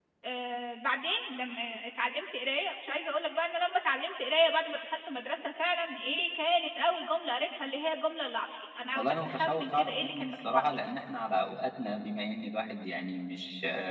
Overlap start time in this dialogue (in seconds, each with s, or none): 8.9 s